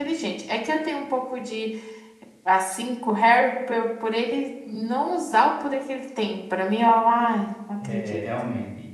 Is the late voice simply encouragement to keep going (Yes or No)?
No